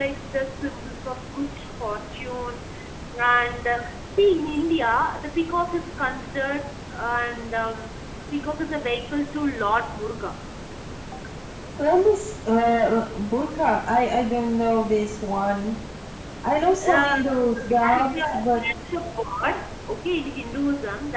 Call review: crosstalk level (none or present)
present